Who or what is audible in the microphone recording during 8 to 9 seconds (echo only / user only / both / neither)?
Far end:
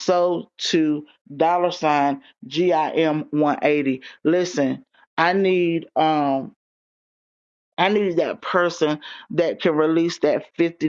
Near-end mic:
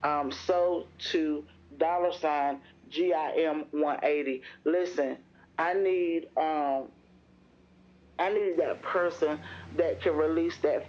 echo only